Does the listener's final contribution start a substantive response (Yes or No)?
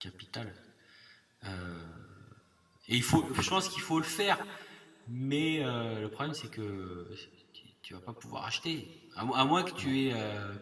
No